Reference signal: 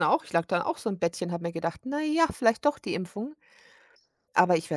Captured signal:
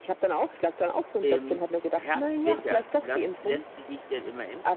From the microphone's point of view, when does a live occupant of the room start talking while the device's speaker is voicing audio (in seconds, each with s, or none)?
1.2 s